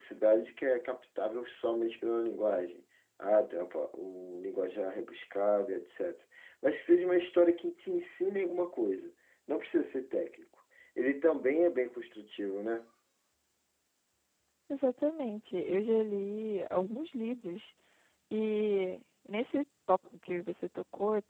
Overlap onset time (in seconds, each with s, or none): none